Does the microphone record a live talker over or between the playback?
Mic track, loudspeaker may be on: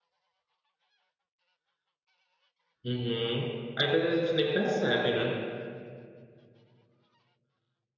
Yes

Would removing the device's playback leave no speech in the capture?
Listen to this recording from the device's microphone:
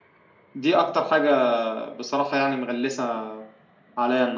No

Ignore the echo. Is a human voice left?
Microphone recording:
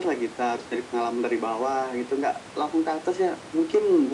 No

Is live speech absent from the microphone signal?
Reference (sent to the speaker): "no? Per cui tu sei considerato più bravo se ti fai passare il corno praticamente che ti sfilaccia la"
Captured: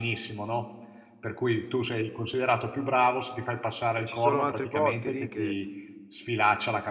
No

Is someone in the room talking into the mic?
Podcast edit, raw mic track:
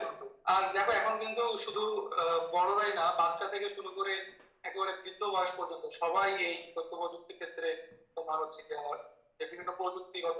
No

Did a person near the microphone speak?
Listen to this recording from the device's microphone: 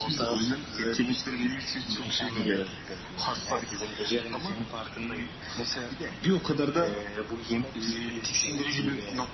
No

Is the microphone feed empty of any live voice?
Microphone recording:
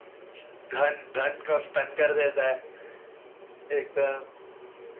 Yes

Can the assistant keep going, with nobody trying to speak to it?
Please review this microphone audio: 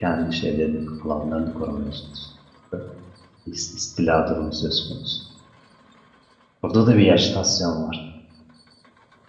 No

